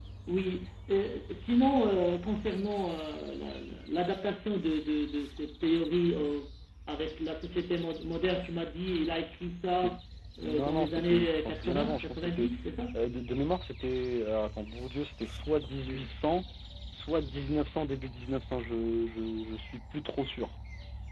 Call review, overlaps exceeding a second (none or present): present